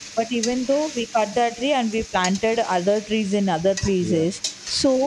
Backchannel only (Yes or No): Yes